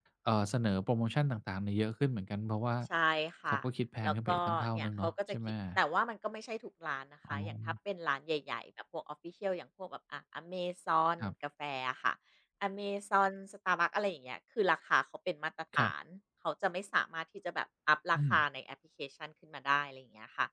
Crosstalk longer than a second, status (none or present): present